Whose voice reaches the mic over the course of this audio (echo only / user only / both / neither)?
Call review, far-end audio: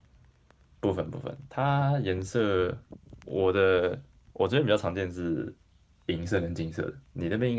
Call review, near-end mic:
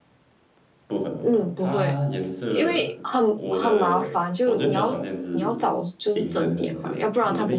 both